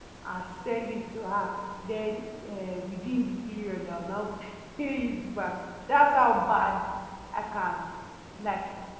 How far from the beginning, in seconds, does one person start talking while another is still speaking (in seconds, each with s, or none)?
none